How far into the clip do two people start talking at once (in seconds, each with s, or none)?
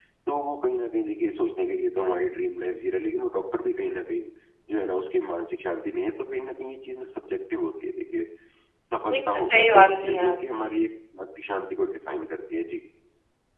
9.1 s